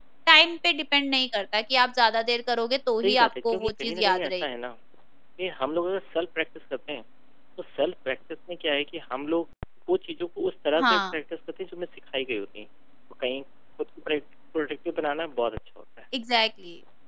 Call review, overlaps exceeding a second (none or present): present